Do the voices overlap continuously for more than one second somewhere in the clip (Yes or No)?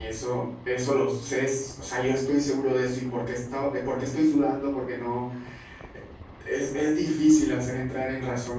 No